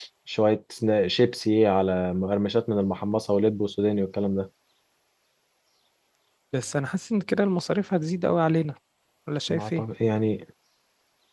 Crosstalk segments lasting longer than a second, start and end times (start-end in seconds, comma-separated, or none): none